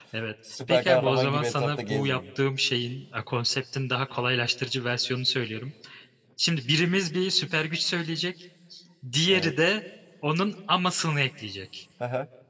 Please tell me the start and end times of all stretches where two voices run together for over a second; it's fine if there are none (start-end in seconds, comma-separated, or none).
0.7-2.2